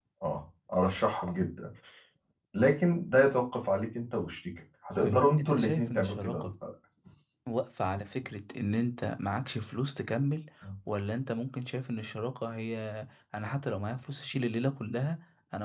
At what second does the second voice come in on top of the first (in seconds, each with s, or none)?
5.0 s